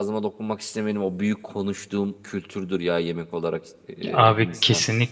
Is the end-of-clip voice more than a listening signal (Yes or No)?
Yes